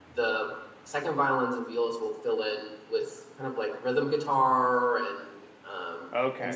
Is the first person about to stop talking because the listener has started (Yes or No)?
Yes